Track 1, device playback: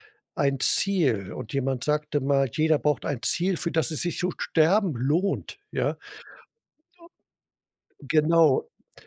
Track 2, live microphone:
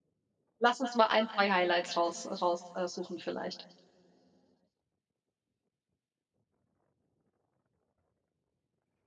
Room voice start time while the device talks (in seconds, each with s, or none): 0.6 s